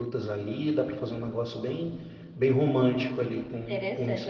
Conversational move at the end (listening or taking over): taking over